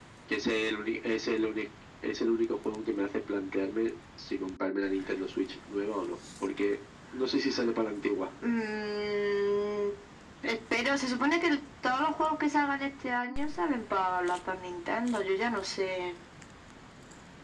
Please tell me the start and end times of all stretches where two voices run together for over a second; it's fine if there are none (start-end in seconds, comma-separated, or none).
none